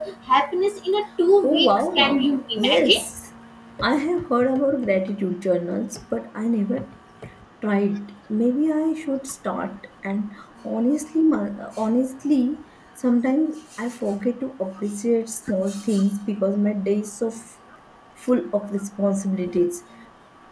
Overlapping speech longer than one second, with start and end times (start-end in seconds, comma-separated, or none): 1.4-3.0